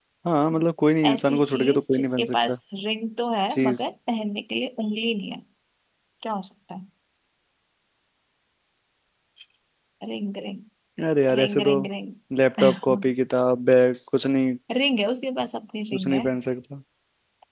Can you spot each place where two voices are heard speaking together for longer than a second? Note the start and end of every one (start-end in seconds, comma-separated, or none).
1.1-2.6